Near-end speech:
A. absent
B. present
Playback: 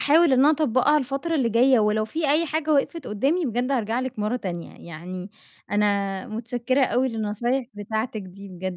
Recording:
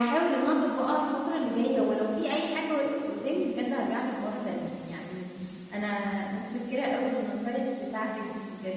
A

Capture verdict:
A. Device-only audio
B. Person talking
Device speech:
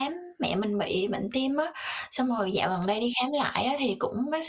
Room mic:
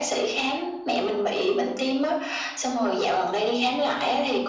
A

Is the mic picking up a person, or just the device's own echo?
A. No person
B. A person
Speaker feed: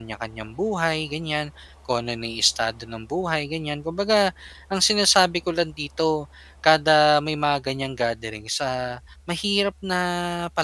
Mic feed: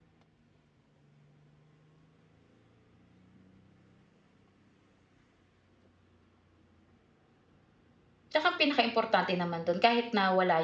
B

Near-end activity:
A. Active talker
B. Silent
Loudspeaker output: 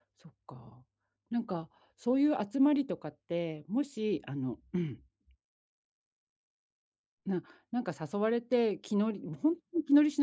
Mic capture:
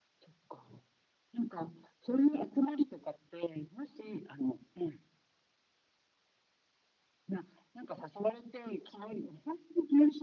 B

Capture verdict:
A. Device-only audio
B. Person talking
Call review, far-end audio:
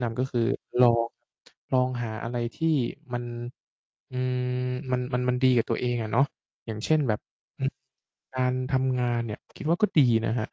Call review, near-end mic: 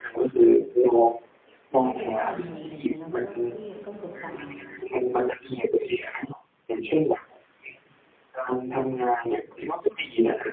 B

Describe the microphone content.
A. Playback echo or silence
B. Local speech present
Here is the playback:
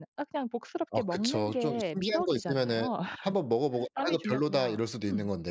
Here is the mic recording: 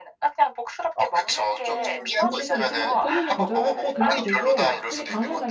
B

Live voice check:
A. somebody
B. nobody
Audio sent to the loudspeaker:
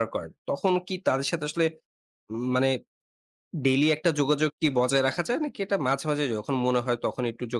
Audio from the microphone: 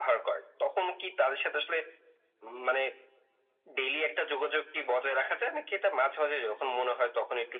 B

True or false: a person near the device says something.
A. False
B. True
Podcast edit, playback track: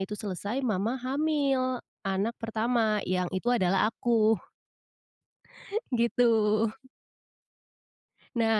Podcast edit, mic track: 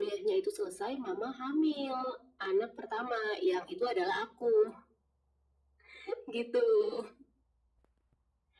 A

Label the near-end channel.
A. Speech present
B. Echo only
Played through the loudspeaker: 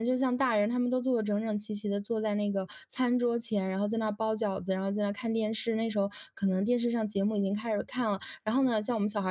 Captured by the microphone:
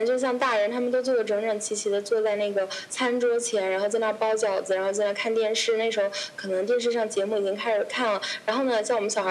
B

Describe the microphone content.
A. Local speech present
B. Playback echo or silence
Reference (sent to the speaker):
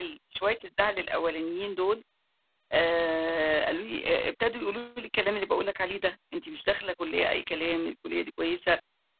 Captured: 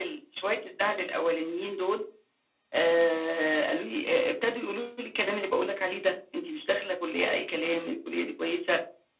B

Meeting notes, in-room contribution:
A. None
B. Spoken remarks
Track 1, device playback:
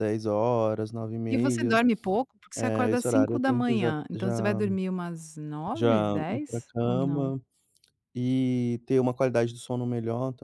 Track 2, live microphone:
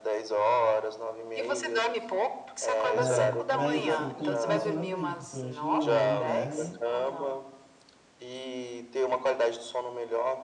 B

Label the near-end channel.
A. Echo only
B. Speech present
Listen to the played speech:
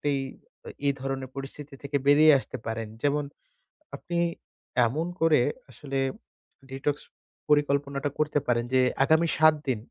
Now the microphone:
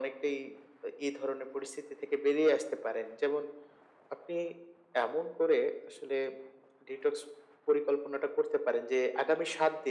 A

